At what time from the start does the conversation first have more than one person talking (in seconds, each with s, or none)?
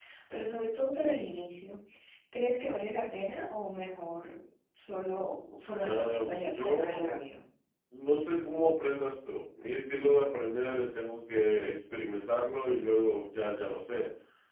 5.8 s